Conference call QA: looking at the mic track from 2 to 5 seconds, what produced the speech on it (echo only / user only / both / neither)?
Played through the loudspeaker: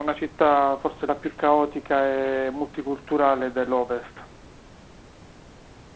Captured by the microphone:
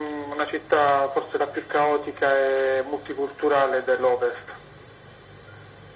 echo only